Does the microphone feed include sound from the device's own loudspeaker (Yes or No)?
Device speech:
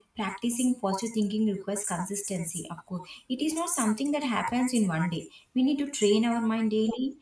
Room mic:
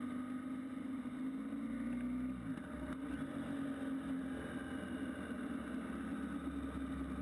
No